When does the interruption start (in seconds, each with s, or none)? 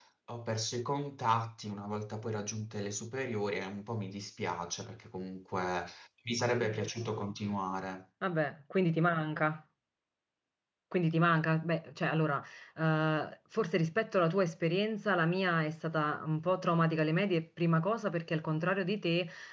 none